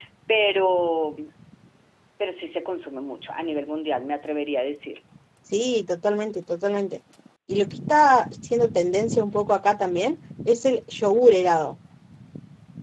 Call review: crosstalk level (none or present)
none